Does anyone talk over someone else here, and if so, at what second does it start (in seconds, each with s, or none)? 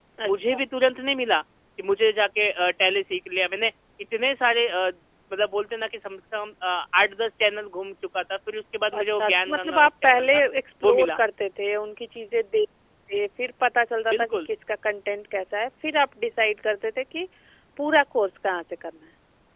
9.0 s